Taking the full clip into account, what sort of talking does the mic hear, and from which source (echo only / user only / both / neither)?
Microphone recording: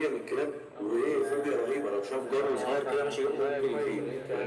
both